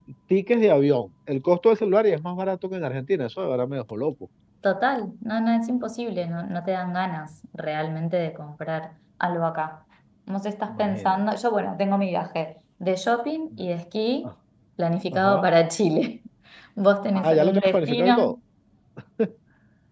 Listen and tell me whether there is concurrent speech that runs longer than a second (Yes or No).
Yes